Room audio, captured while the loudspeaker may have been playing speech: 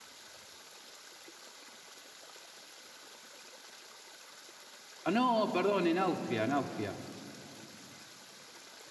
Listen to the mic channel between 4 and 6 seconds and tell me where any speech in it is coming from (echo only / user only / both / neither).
user only